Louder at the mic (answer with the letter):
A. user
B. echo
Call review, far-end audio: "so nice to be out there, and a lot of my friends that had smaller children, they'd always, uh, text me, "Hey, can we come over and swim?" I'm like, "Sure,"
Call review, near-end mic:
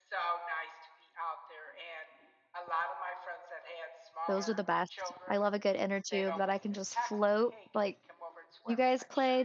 A